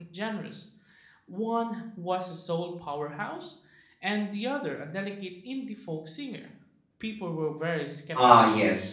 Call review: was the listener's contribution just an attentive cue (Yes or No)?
No